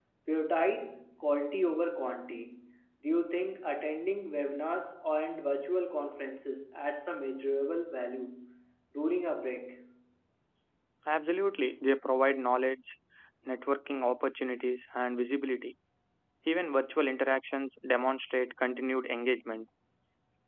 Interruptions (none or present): none